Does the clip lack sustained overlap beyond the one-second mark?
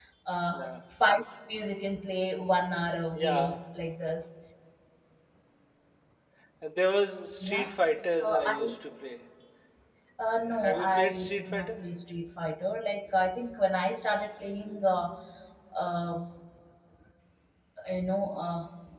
No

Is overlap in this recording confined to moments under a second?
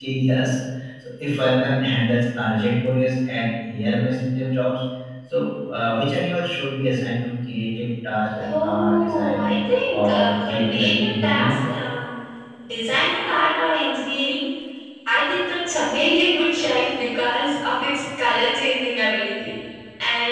No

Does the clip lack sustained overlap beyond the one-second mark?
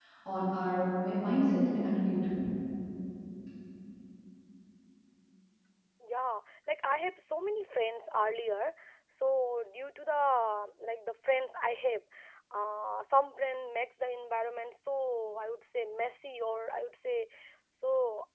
Yes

